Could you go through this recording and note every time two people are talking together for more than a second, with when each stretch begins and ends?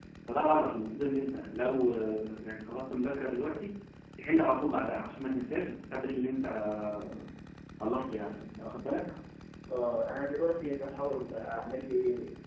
none

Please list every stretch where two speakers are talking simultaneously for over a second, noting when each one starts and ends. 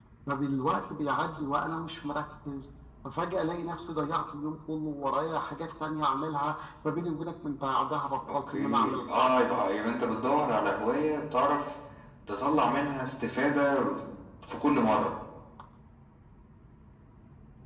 8.3-9.6

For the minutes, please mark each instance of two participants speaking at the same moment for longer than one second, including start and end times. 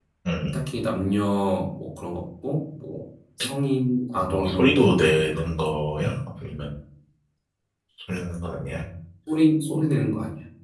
4.2-5.7

